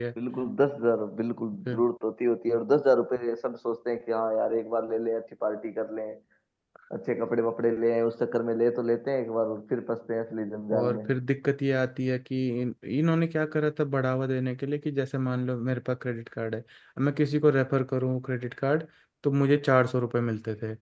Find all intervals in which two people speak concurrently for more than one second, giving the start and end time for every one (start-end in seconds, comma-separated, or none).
none